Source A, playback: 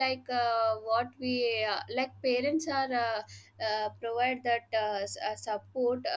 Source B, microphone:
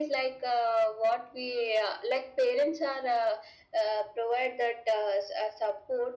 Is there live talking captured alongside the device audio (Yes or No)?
No